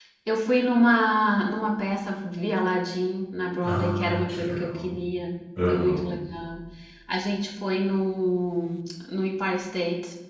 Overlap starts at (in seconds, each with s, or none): 3.6 s